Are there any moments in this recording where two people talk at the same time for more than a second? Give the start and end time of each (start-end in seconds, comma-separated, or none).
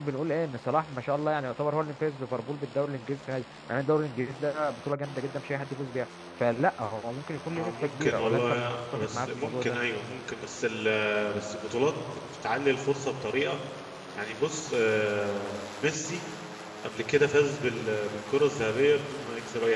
7.5-9.8